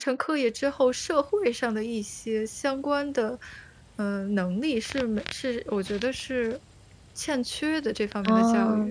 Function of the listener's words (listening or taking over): taking over